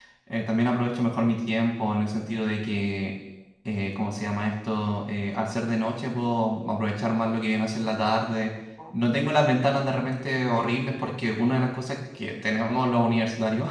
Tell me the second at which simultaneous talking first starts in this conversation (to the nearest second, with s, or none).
none